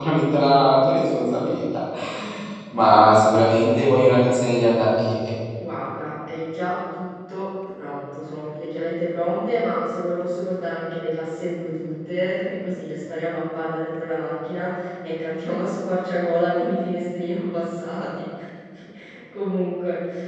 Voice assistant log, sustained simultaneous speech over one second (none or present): none